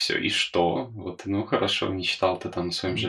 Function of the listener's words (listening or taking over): listening